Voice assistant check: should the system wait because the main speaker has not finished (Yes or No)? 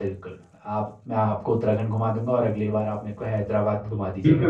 No